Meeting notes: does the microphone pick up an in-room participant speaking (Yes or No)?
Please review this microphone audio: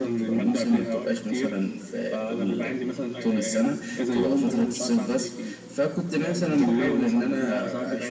No